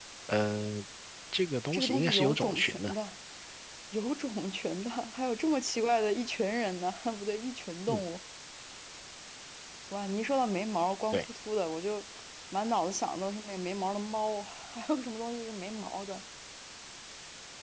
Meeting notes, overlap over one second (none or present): present